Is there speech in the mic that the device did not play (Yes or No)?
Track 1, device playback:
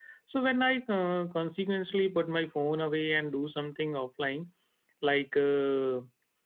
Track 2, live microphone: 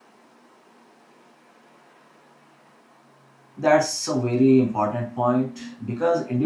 Yes